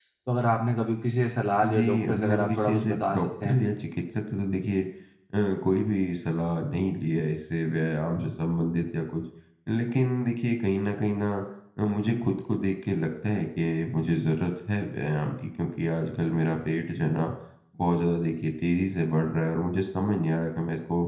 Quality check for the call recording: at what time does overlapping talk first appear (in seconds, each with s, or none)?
1.6 s